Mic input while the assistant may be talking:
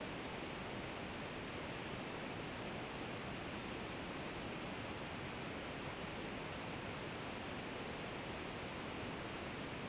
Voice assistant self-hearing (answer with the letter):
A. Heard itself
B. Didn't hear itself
B